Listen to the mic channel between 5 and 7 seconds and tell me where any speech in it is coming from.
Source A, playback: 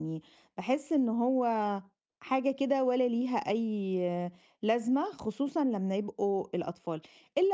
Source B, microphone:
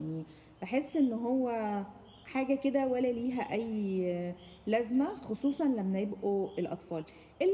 echo only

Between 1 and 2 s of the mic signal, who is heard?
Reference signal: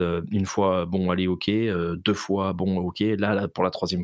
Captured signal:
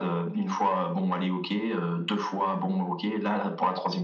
echo only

